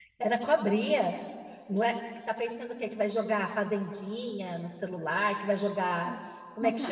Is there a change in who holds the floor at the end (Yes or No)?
No